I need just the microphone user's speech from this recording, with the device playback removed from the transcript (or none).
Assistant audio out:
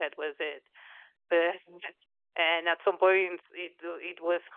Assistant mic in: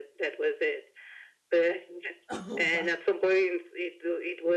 Oh wow,